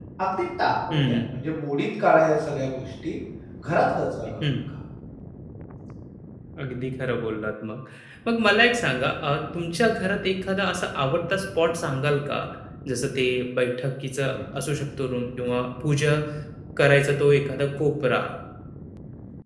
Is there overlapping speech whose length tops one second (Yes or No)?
No